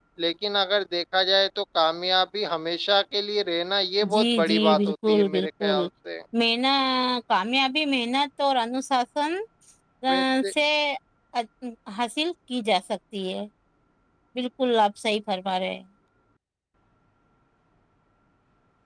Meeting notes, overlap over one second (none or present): present